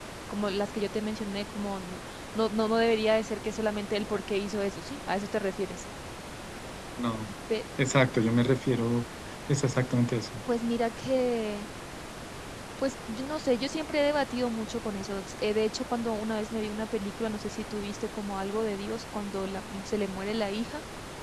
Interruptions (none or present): none